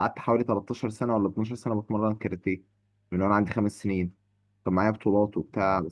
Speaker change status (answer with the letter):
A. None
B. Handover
A